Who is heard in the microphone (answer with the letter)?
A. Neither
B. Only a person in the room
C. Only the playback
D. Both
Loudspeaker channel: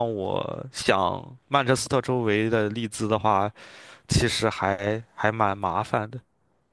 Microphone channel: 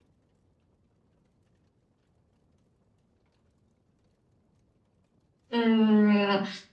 B